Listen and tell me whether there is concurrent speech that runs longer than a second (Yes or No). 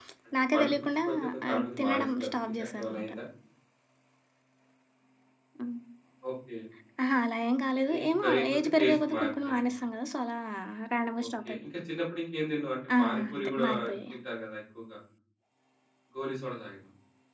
Yes